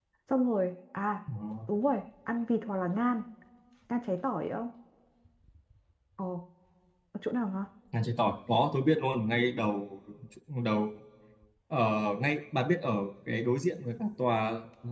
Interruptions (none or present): none